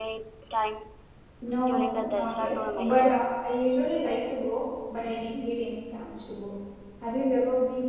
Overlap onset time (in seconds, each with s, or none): 1.7 s